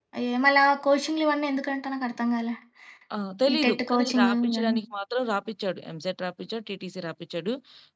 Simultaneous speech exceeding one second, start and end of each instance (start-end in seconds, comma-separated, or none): 3.5-4.8